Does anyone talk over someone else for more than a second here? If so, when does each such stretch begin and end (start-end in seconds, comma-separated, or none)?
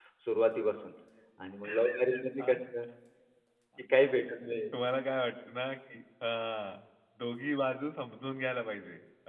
none